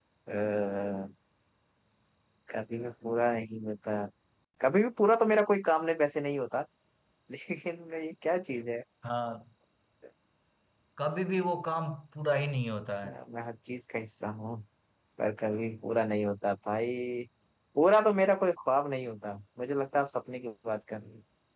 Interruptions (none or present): none